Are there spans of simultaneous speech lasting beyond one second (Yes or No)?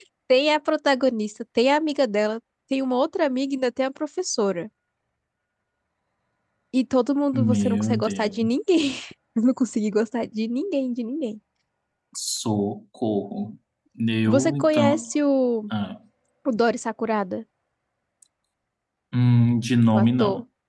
Yes